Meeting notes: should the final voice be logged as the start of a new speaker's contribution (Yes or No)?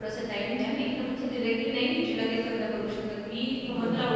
No